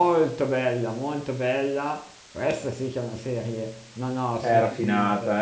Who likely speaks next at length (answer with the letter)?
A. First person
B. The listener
B